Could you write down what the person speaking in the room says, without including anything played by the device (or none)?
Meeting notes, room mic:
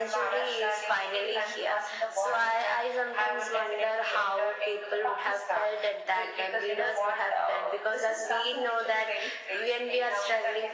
none